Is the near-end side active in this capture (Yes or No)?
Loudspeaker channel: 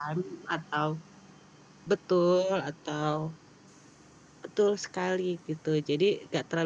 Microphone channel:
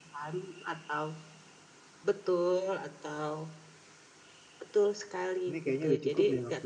Yes